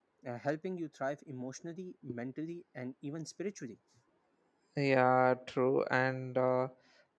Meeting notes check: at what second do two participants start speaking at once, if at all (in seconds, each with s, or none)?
none